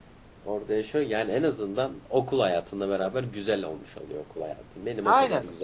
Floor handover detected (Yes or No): Yes